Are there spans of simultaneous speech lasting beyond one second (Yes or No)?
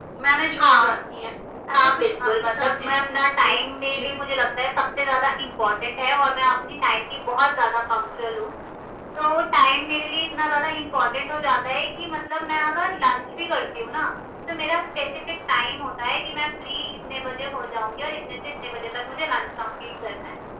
Yes